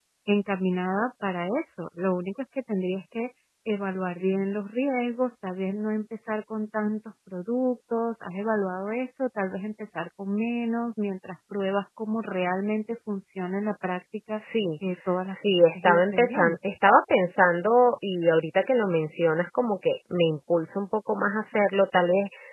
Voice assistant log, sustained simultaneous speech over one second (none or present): present